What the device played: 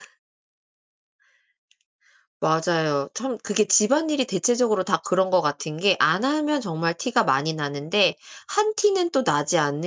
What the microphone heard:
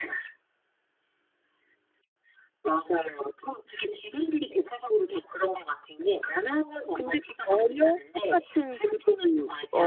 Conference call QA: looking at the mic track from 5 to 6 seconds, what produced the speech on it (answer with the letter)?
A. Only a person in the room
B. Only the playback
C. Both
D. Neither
B